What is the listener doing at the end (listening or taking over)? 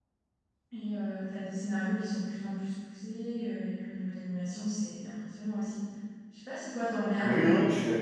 taking over